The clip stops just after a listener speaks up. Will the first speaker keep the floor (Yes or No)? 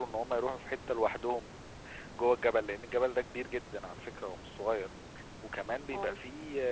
Yes